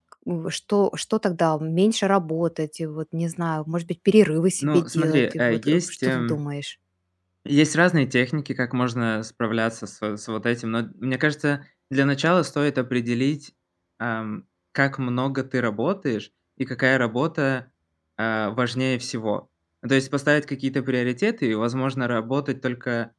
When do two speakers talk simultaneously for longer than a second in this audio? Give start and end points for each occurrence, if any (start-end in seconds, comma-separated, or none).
4.6-6.4